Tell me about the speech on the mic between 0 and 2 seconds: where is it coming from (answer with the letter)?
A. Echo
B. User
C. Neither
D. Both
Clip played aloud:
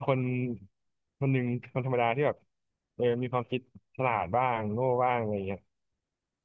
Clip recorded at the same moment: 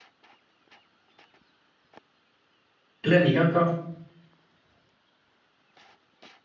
C